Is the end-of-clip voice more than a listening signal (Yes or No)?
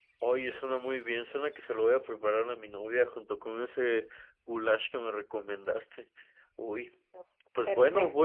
No